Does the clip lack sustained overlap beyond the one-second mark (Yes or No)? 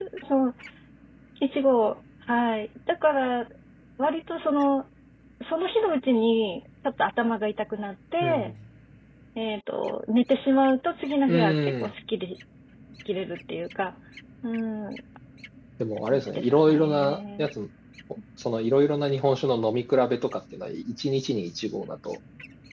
No